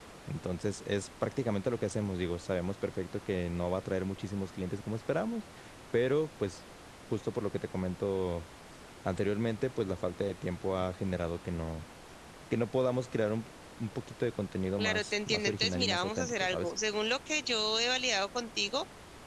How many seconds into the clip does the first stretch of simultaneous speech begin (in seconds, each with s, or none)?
14.8 s